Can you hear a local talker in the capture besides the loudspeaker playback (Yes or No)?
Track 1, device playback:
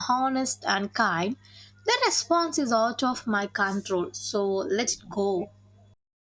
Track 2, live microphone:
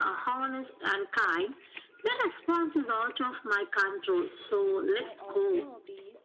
Yes